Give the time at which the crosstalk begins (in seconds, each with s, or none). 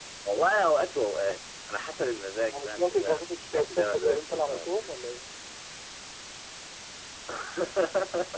2.5 s